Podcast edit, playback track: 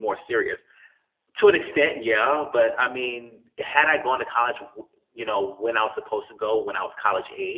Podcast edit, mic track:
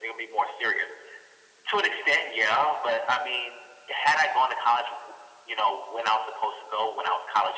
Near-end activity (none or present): none